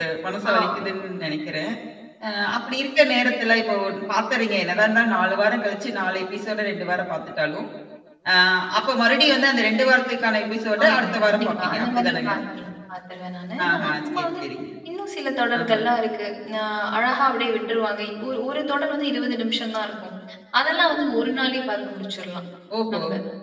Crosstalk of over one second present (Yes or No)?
Yes